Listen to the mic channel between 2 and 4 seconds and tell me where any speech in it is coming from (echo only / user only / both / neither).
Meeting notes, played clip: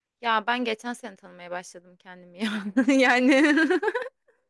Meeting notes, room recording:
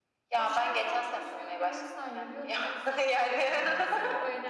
both